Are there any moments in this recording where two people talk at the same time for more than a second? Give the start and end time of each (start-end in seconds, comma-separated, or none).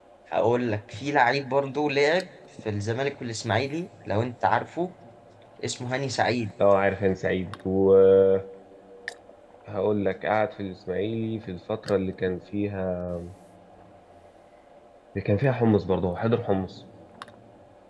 none